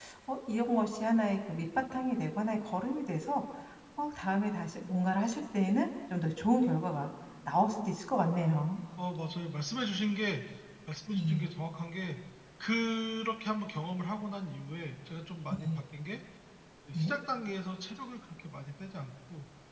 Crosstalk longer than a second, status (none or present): none